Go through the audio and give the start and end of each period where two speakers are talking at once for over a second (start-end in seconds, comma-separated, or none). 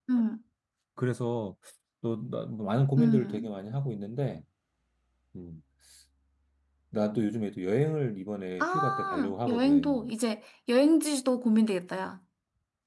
8.6-10.1